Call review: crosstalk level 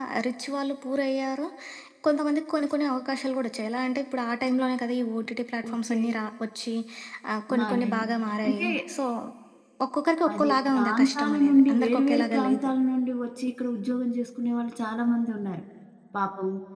present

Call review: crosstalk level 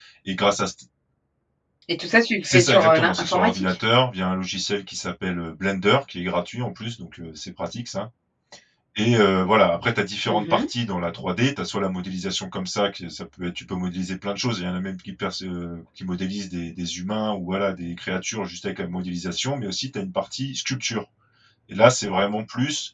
present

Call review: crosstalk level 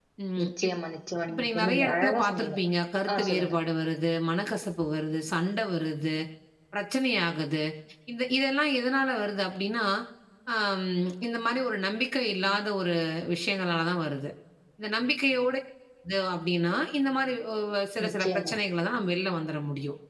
present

